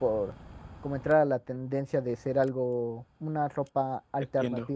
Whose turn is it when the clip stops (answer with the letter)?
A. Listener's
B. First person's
A